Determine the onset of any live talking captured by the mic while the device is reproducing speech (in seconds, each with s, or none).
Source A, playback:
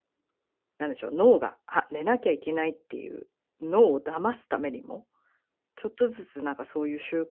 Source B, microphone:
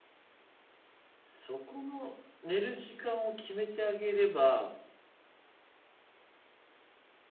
1.2 s